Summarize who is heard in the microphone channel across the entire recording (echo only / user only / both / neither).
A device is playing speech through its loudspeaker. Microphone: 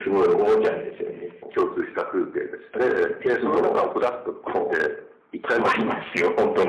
echo only